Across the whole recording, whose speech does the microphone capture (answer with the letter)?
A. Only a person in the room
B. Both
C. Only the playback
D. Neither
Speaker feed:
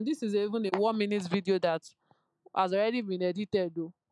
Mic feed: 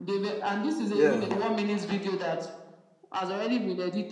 B